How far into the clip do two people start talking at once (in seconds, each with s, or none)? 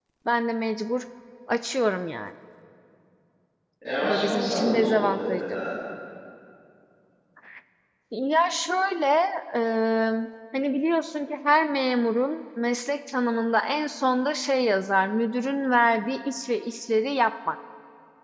4.0 s